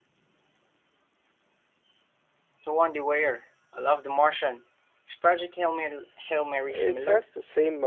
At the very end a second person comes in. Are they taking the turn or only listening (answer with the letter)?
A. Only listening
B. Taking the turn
B